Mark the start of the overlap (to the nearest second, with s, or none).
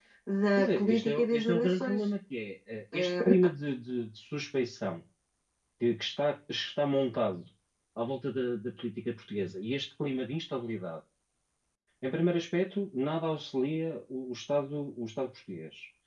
1 s